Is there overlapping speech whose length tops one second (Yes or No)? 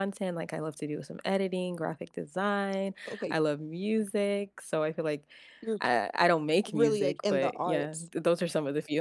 Yes